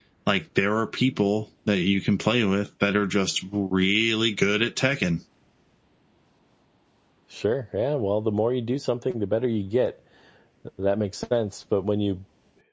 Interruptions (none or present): none